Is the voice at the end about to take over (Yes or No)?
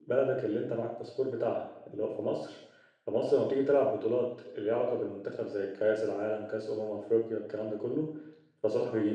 No